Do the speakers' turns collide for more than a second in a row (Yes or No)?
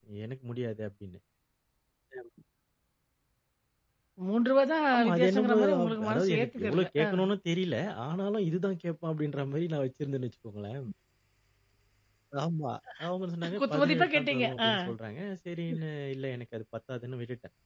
Yes